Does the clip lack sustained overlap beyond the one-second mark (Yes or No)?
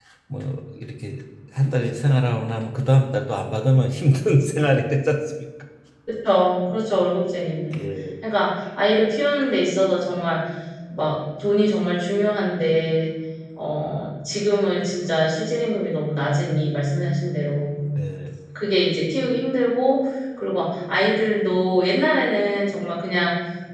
Yes